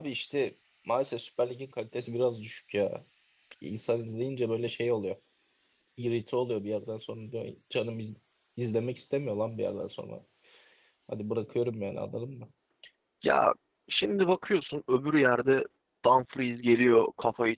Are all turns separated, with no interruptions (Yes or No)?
Yes